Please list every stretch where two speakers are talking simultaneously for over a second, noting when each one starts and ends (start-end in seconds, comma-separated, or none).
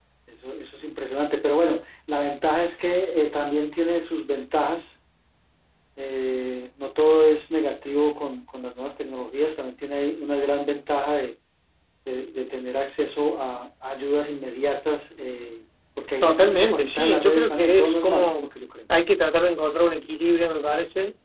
16.2-18.5